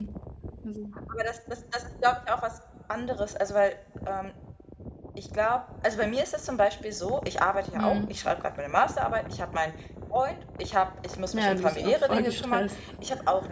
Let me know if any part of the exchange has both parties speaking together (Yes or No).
Yes